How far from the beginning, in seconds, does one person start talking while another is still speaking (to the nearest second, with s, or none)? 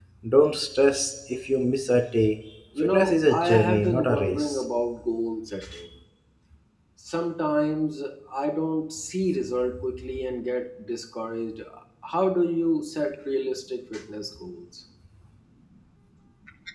3 s